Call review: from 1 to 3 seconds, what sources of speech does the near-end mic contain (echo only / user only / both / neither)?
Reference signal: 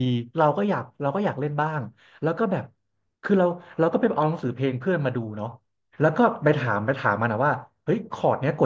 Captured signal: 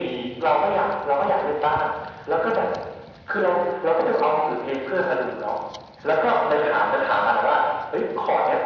echo only